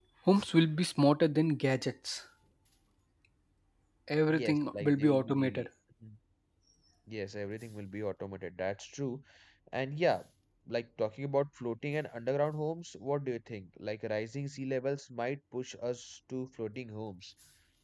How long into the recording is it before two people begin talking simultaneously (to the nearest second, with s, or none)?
4 s